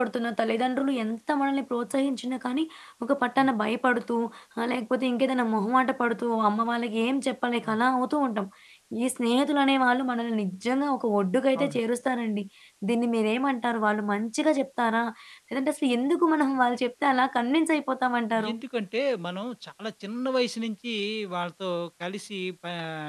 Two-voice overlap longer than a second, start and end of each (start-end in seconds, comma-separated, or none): none